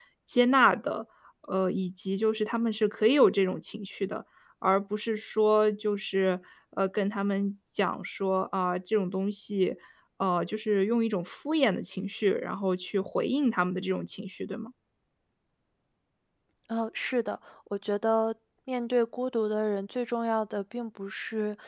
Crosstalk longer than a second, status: none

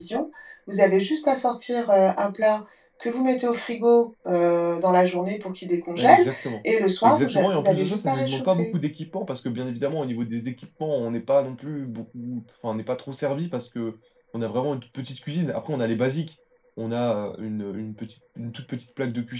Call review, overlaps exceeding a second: present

